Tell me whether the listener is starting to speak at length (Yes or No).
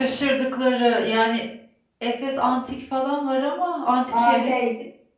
Yes